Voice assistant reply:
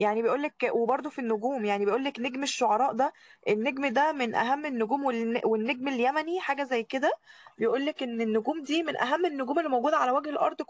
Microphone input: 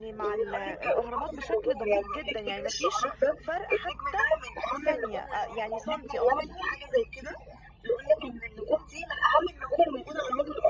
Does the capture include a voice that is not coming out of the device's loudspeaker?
Yes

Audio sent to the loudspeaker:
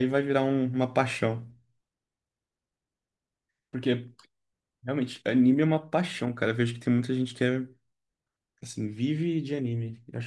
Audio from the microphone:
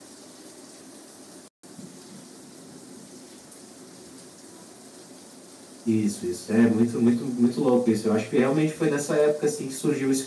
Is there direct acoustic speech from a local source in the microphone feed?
Yes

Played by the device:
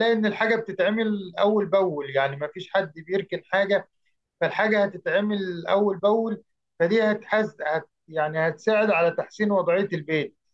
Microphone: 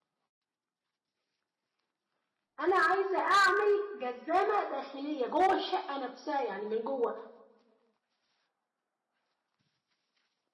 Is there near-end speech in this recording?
Yes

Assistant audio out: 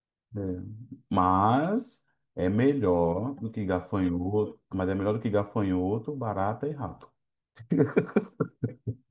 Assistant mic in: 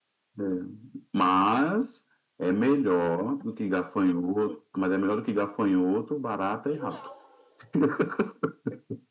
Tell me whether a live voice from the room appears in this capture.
Yes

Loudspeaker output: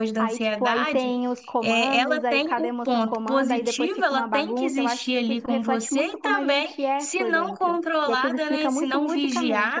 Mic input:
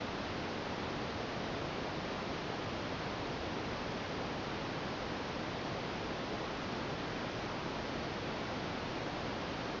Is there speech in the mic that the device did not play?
No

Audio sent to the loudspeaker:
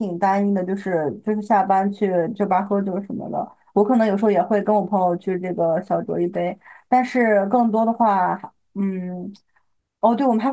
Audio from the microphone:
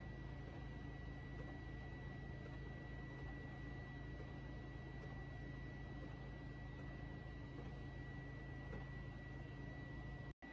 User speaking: No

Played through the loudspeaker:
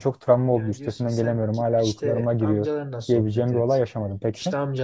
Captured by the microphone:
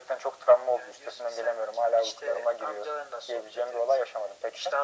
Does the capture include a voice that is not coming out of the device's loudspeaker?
No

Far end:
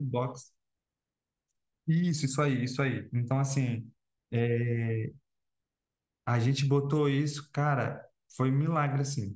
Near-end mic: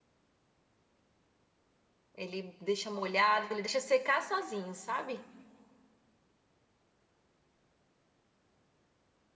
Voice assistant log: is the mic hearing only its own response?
No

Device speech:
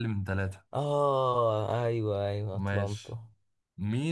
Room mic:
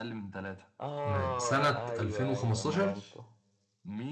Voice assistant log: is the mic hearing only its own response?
No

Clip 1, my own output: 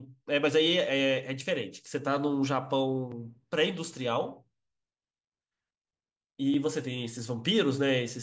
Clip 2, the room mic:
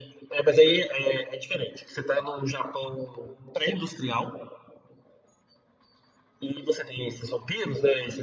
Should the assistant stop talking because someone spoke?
No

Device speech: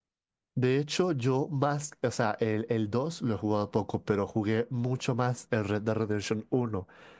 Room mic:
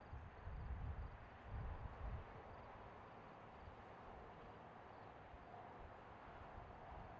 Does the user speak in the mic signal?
No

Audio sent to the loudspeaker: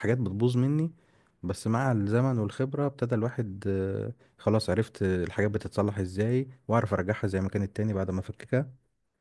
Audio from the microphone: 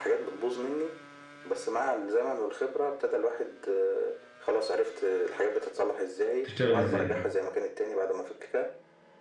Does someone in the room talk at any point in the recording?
Yes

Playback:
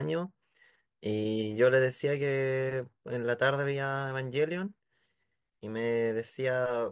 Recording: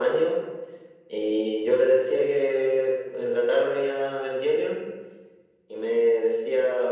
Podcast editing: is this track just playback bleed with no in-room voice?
Yes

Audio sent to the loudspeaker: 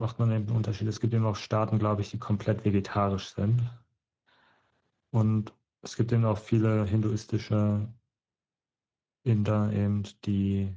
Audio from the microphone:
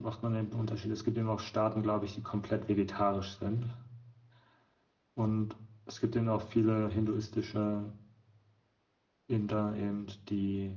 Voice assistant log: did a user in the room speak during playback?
No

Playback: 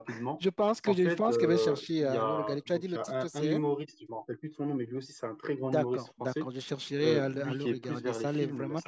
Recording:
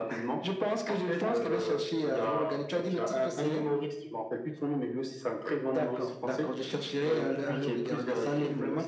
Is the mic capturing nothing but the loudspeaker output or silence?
Yes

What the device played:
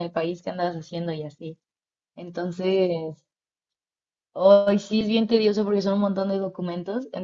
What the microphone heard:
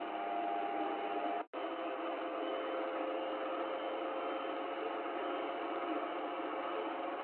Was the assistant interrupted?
No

